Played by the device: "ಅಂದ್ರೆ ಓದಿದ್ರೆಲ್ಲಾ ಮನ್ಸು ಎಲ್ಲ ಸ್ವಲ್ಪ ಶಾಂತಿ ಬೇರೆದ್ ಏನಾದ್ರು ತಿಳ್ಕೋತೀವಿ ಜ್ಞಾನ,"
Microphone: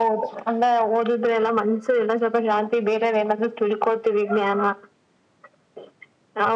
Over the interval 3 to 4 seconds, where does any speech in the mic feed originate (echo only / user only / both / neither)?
echo only